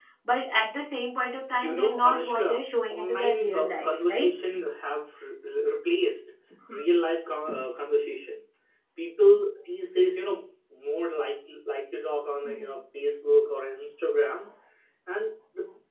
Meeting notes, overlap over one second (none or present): present